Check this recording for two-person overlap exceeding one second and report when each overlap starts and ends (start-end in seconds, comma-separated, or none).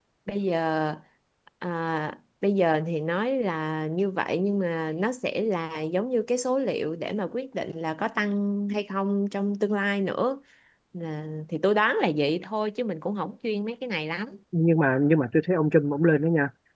none